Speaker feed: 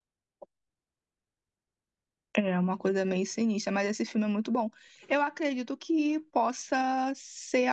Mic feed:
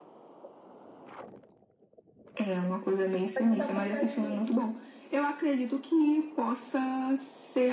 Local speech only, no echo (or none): Mas que tá acontecendo?